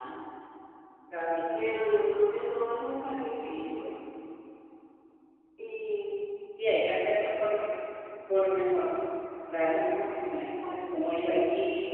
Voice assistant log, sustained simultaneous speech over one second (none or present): none